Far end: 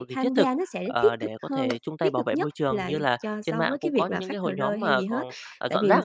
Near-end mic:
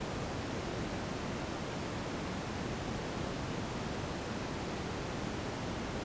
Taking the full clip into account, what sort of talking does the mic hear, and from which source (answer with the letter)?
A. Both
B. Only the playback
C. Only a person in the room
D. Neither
D